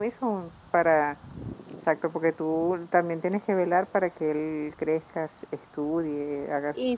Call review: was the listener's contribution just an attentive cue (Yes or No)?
No